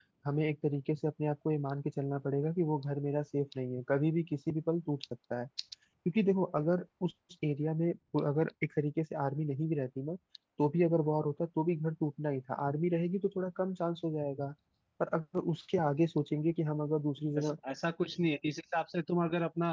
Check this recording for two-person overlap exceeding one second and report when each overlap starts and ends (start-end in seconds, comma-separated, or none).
none